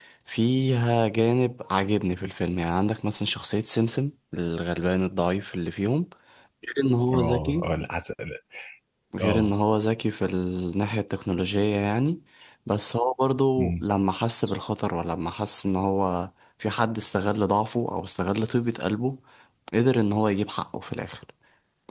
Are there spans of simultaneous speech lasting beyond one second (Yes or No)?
No